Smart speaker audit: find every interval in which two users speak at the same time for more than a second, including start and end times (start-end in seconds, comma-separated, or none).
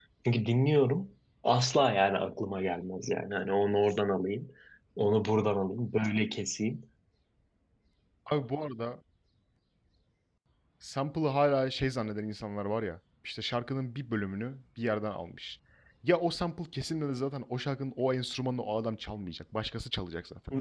none